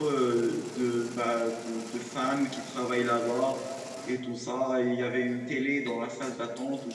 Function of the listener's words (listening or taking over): listening